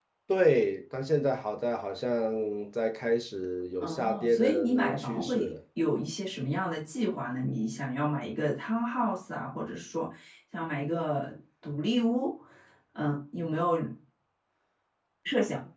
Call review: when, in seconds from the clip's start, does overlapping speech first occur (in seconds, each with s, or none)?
3.8 s